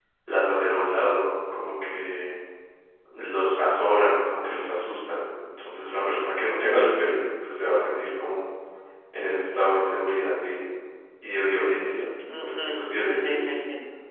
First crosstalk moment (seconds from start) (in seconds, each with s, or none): 12.2 s